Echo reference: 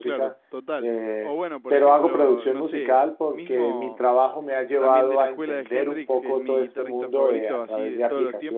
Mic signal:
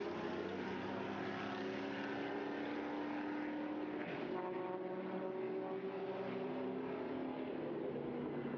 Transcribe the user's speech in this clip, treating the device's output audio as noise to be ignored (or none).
none